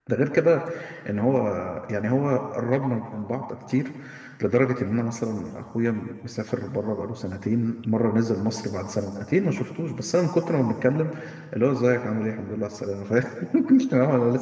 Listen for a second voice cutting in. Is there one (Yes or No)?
No